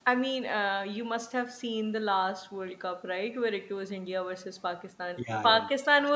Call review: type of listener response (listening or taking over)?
listening